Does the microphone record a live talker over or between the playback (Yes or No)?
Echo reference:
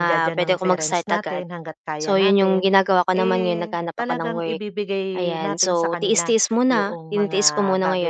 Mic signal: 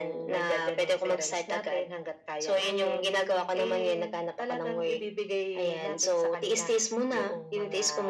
No